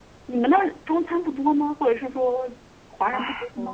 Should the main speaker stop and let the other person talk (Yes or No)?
Yes